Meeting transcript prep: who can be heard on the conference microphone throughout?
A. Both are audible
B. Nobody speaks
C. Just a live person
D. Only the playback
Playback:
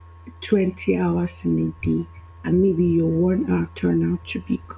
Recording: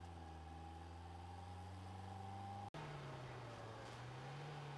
B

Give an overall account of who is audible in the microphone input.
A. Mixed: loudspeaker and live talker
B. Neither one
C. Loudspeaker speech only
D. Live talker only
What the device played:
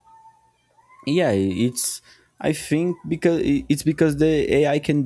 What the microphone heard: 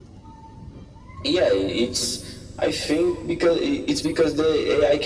C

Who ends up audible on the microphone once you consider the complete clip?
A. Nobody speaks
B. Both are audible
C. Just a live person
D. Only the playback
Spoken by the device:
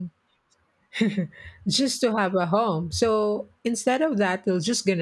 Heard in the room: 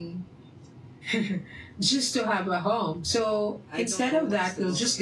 B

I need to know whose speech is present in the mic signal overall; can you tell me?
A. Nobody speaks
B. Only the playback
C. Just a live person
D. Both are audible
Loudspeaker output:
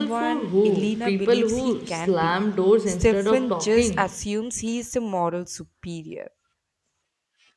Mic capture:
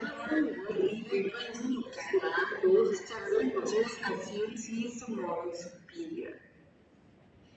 B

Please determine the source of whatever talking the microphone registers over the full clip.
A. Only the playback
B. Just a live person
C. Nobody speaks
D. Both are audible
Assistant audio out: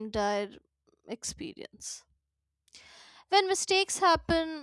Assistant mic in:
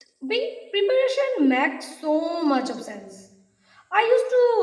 B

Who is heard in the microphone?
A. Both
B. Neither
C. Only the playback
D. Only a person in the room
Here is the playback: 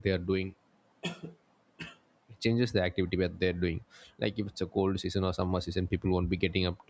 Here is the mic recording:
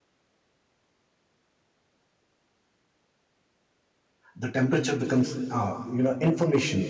D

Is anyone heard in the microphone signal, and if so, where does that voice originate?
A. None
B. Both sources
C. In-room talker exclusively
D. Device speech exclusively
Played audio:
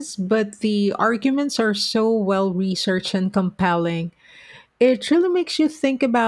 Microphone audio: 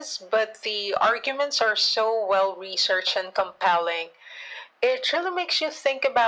D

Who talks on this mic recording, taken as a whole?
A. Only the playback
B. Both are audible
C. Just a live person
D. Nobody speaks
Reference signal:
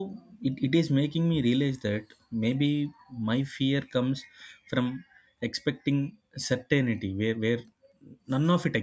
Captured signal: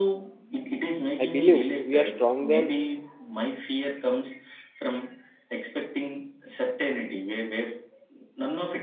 B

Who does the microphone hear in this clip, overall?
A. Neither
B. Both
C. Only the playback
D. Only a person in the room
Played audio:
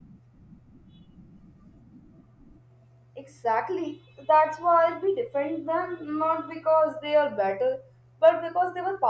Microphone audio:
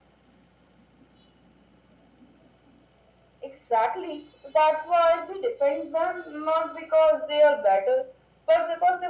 C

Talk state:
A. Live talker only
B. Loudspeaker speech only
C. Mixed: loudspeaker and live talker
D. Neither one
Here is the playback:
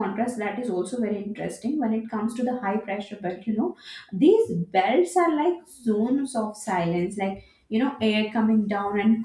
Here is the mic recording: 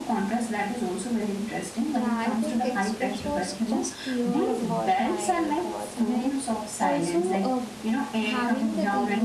C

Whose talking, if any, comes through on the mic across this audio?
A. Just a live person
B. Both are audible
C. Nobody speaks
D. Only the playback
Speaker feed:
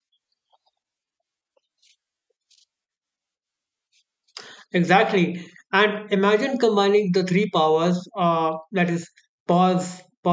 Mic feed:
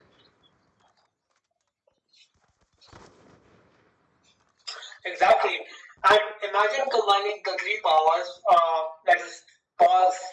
D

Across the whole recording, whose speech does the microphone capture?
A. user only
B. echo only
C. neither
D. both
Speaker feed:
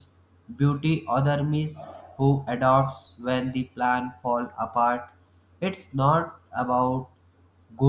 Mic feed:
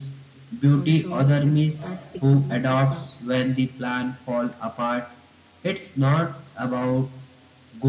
D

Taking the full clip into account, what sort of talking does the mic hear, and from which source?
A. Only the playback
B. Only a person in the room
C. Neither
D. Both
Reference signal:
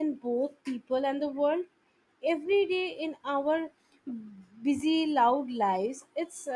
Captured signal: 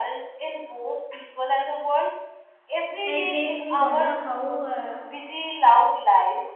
D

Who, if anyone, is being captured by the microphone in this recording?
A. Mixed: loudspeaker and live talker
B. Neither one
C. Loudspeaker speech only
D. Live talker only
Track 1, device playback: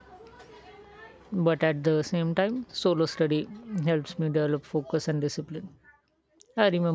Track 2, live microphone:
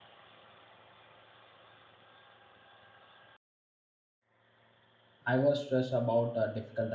D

